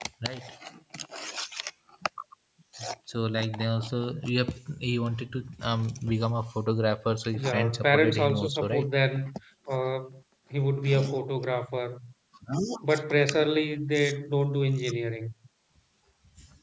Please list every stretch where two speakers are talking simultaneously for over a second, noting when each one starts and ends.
7.3-8.9

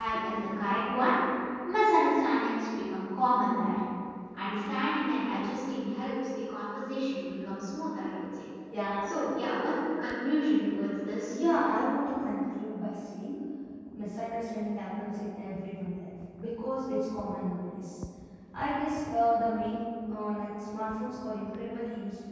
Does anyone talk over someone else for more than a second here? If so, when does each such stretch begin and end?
none

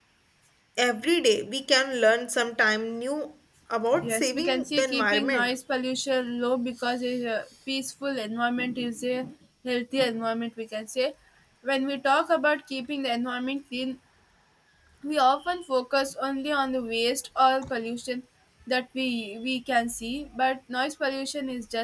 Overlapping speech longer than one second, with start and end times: 4.0-5.5

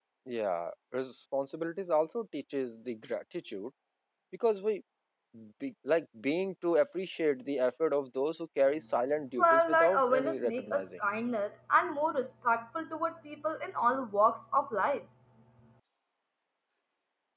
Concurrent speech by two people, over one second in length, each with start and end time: 9.4-10.8

